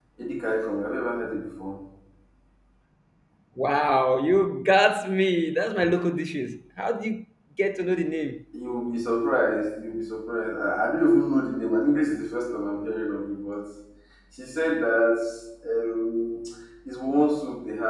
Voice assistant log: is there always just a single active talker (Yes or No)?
Yes